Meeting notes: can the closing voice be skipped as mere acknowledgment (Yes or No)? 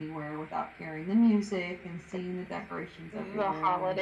No